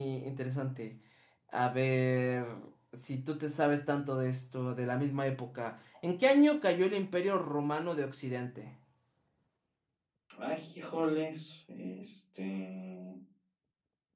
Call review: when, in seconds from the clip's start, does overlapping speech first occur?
none

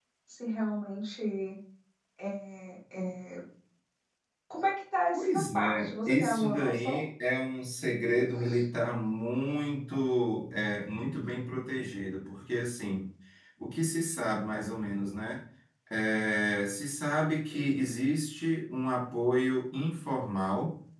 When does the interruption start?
5.1 s

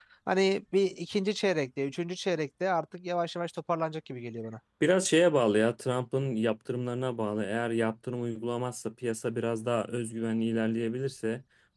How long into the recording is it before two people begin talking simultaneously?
none

